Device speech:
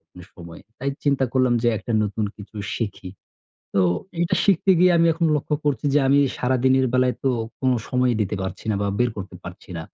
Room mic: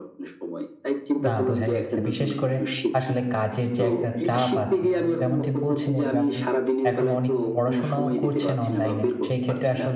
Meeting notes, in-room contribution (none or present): present